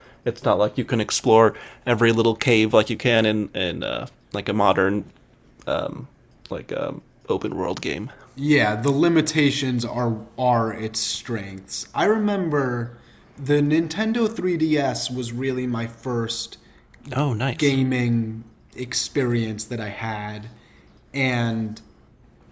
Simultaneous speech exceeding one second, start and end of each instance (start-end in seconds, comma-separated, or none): none